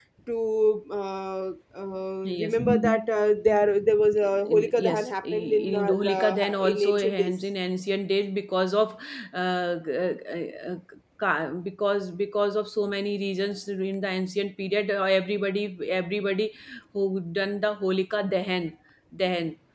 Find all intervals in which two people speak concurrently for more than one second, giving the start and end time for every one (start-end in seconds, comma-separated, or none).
4.2-7.3